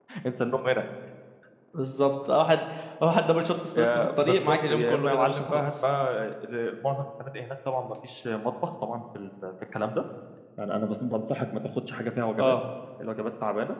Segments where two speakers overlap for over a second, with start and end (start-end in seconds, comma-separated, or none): 3.8-5.7